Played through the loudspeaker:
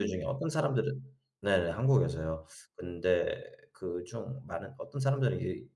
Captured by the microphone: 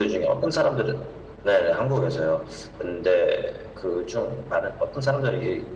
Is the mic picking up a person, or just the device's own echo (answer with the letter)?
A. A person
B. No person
B